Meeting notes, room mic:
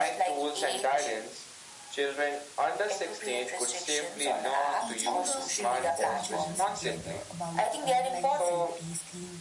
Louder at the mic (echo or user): echo